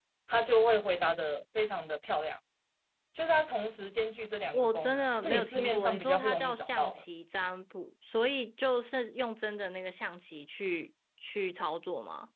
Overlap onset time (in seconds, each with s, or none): 4.5 s